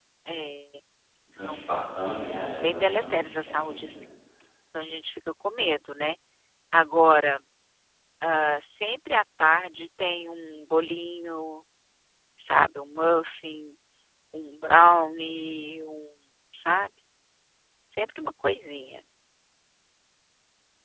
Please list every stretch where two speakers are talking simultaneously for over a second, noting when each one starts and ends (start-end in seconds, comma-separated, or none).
2.6-4.1